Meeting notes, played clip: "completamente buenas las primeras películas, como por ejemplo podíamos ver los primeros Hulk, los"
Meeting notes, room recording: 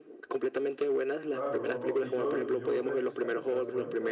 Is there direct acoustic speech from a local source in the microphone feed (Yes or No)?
Yes